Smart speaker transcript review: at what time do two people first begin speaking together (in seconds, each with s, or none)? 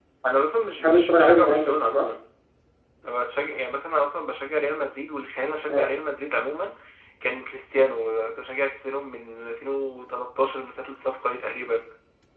0.8 s